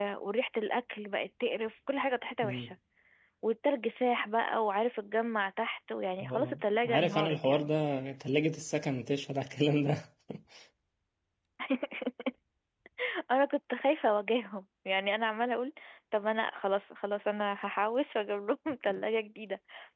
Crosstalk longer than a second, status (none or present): present